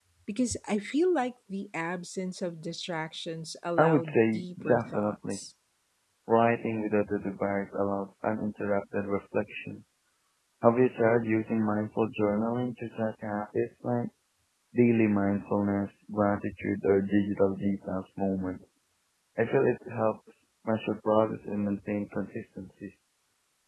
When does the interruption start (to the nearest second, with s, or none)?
4 s